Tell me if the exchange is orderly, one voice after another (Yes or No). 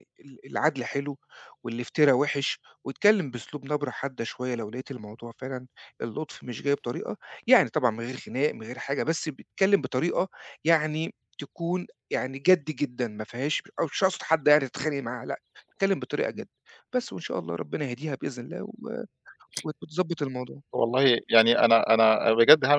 Yes